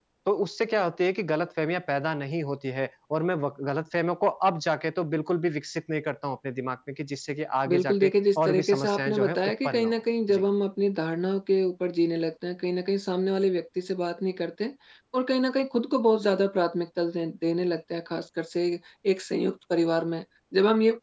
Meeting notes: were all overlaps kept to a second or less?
No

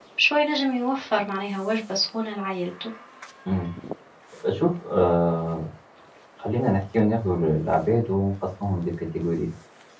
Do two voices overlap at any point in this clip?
No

